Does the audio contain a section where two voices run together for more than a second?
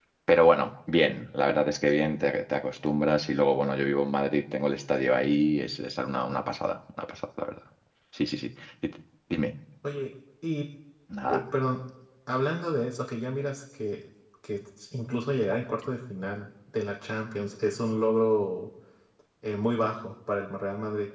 No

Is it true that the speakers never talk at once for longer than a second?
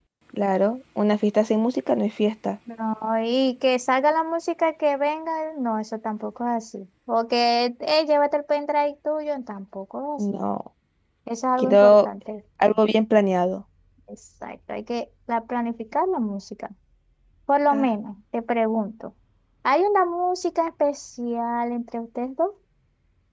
Yes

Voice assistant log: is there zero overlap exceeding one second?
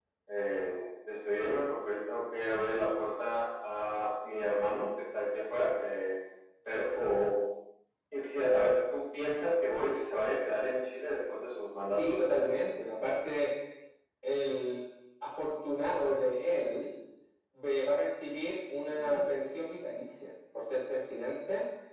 Yes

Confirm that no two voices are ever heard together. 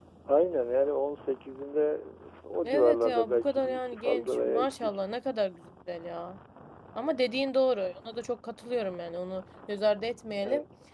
No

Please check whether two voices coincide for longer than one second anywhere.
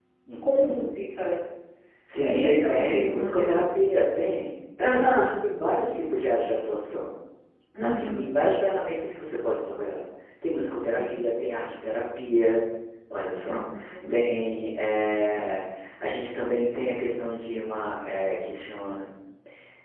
Yes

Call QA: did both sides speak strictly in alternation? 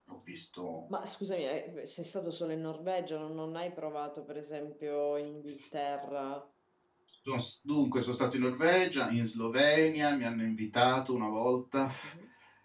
Yes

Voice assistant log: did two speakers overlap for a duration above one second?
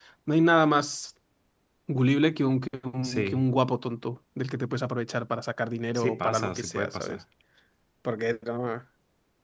Yes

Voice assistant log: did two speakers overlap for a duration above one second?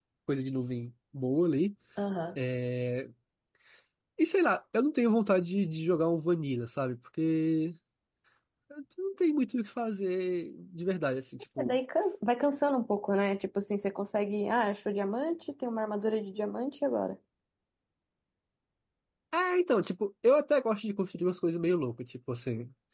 No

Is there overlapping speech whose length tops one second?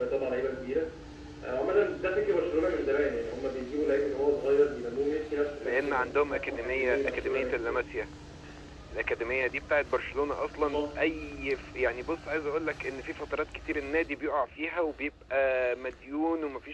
Yes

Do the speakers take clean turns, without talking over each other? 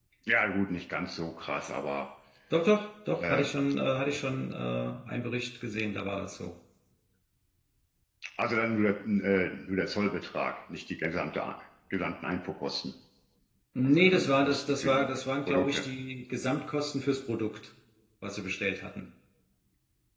No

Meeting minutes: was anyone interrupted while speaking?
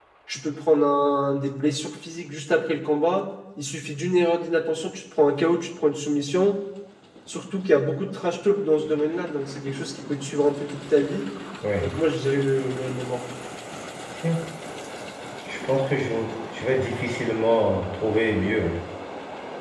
No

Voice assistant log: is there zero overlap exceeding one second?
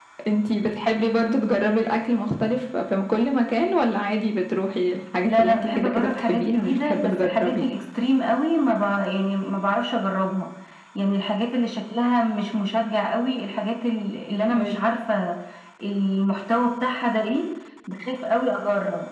No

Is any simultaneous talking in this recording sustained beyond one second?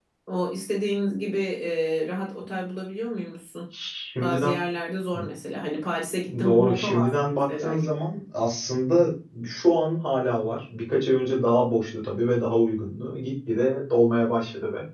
Yes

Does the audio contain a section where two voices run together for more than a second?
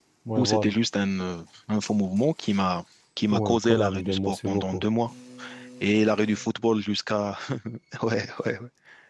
Yes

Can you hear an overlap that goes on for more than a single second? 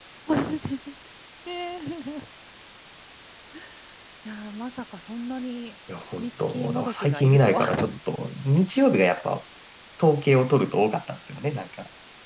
Yes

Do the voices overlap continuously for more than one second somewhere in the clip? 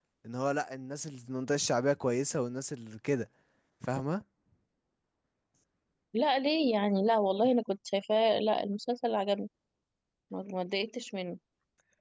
No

